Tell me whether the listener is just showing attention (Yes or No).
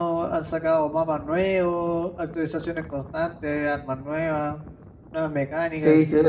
No